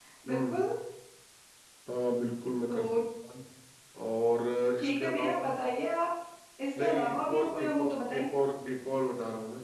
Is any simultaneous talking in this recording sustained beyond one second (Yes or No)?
Yes